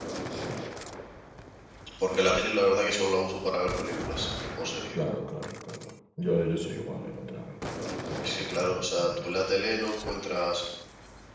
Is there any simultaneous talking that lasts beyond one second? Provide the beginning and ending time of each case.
8.2-9.4

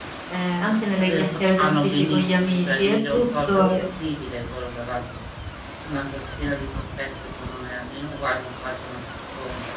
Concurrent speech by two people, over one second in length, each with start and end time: 0.7-3.8

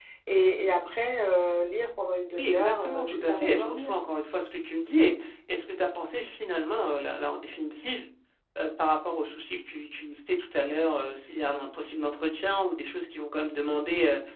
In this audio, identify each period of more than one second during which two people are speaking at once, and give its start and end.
2.3-3.9

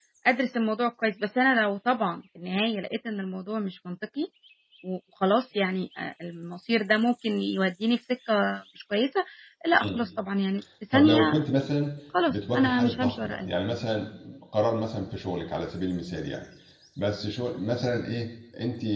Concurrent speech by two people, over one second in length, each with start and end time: 12.3-13.5

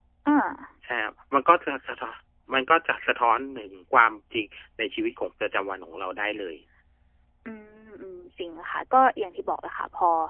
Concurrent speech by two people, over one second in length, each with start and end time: none

